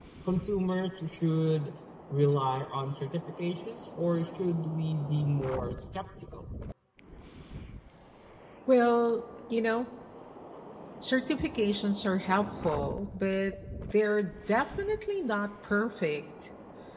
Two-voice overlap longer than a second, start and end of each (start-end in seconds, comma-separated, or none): none